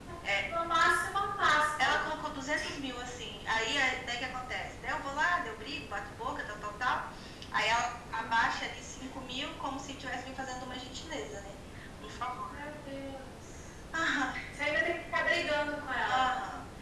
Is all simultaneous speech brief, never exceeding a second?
Yes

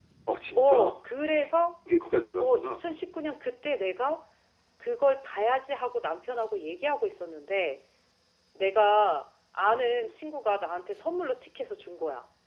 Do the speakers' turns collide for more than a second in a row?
No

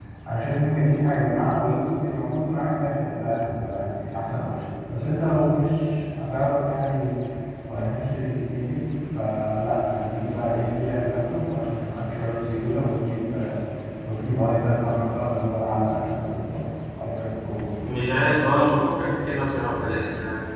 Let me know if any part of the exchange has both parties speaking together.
No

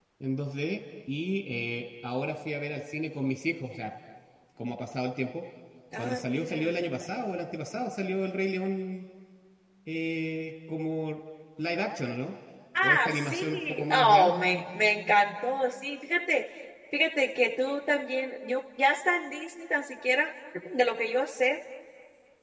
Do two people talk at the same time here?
Yes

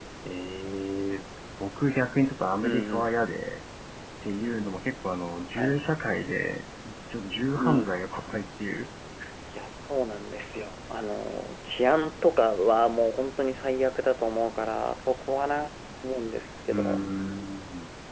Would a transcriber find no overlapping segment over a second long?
Yes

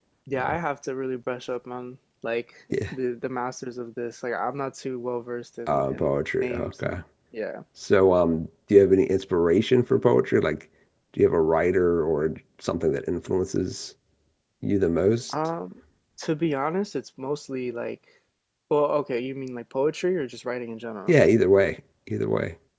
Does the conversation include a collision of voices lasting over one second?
Yes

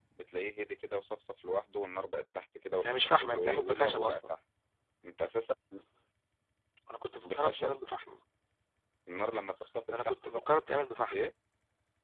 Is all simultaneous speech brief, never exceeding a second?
No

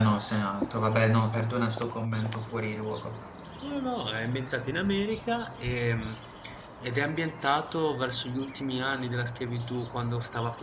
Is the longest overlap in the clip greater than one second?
No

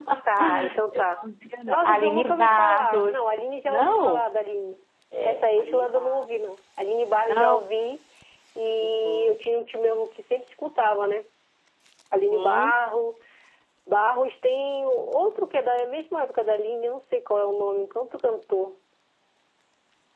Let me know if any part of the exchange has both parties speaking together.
Yes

